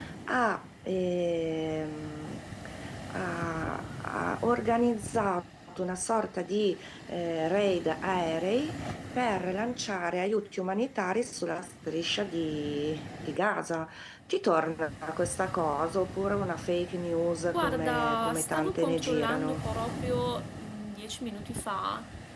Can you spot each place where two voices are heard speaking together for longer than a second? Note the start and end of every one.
17.4-19.6

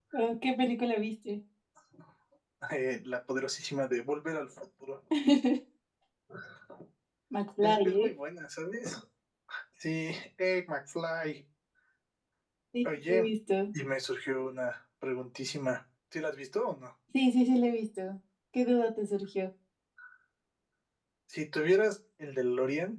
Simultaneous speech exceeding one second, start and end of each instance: none

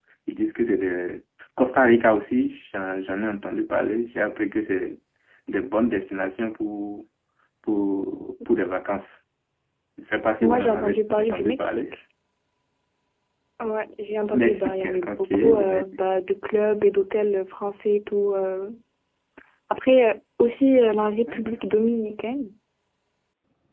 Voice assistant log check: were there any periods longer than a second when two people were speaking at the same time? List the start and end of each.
10.4-11.8, 14.3-15.8

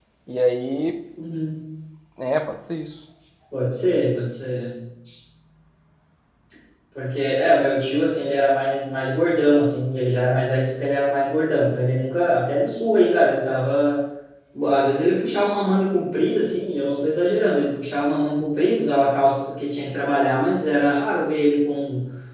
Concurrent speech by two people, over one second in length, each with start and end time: none

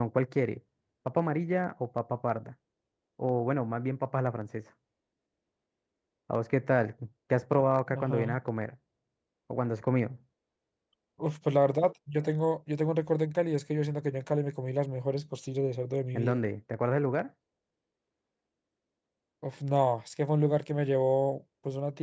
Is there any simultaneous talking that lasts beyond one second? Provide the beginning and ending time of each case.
none

